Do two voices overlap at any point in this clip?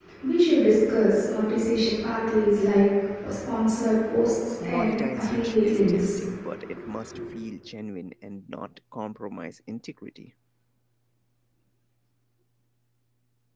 Yes, from 4.6 s

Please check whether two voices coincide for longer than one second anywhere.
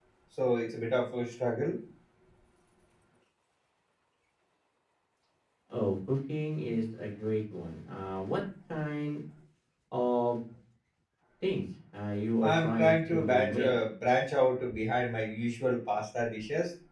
Yes, from 12.4 s

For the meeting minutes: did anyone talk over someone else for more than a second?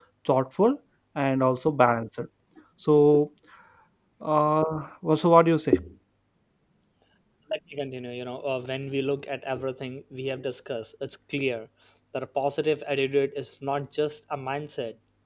No

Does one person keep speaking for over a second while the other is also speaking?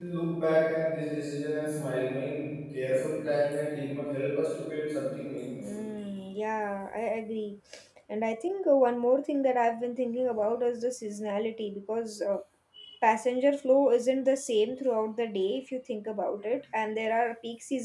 No

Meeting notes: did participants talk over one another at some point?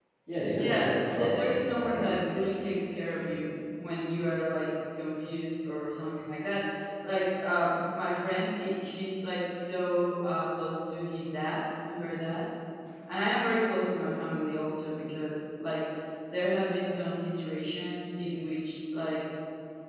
Yes, from 0.6 s

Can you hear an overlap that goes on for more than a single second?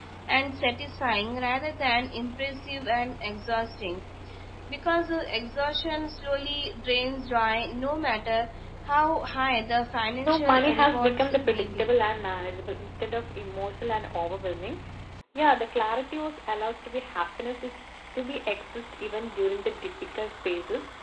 Yes, from 10.3 s

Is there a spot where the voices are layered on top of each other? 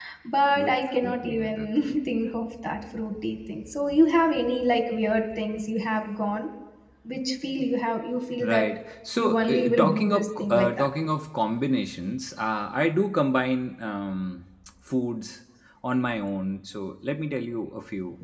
Yes, from 0.6 s

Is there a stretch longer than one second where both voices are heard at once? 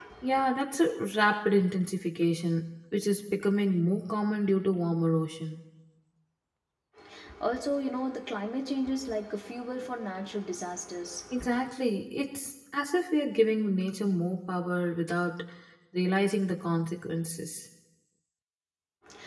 No

